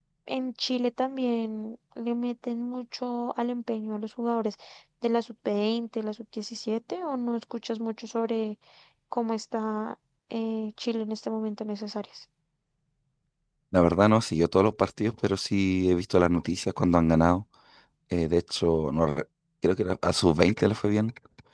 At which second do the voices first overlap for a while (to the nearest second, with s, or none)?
none